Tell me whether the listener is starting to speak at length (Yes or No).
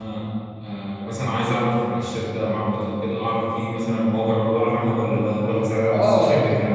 Yes